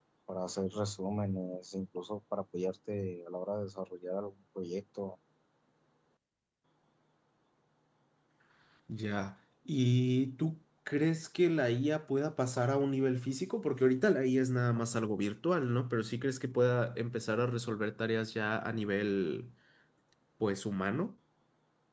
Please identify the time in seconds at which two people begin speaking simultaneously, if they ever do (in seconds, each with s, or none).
none